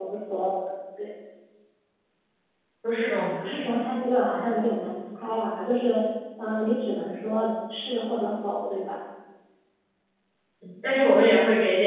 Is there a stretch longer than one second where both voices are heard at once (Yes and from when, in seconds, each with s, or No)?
No